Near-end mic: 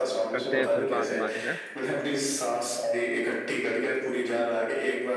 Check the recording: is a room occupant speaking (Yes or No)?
Yes